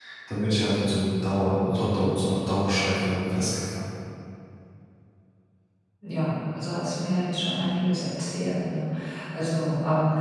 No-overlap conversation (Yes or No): Yes